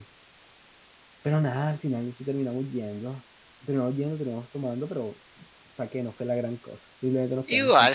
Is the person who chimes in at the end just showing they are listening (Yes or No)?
No